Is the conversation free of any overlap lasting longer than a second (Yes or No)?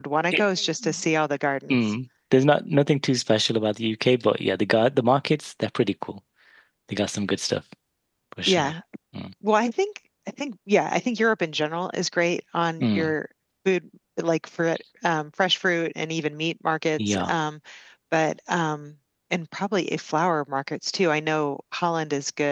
Yes